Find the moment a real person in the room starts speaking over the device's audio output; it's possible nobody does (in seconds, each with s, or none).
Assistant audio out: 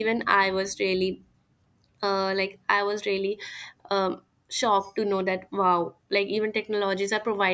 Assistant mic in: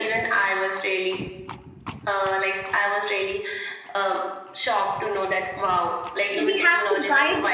6.4 s